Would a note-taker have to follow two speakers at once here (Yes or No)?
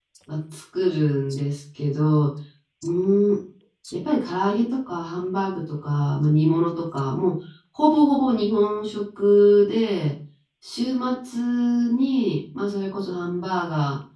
No